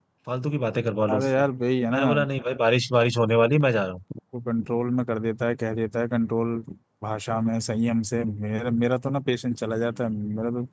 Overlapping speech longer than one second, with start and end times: none

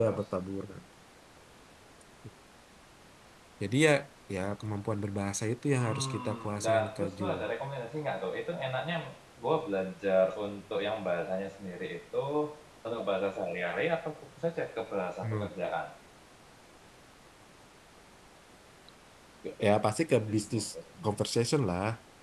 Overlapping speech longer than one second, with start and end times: 5.7-7.2

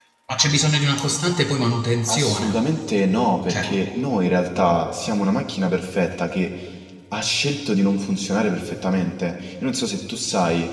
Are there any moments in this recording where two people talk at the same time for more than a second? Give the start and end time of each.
none

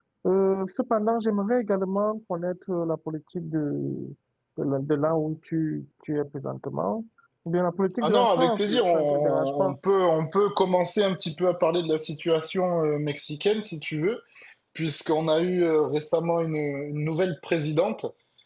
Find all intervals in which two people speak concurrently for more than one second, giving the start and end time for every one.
8.0-9.8

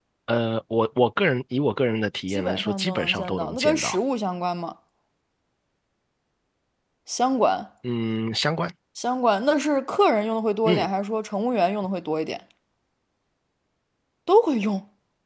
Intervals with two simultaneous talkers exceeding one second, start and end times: 2.3-4.0

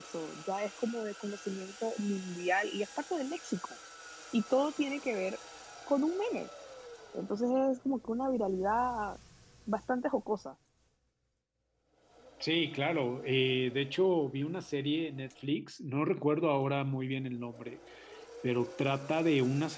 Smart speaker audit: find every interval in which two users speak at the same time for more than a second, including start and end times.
none

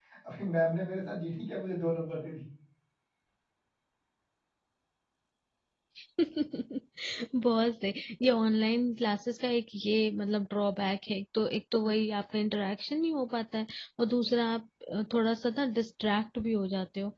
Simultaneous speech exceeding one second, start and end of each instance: none

